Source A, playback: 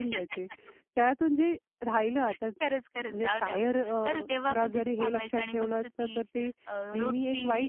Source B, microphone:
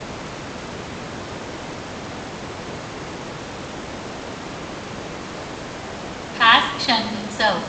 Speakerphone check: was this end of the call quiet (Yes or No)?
No